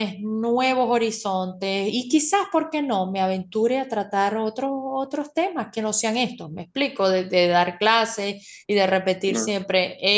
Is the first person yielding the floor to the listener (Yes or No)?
No